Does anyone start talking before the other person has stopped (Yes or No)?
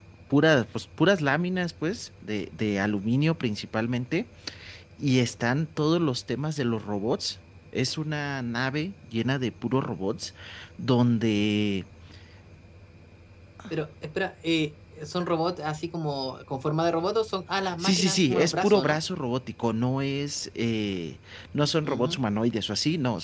Yes